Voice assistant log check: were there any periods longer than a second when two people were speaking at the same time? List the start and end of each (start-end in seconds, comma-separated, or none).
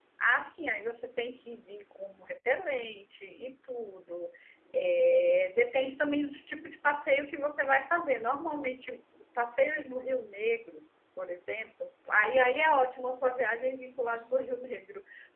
none